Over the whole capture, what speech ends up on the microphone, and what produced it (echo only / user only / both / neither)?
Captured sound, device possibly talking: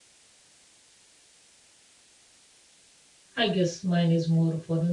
user only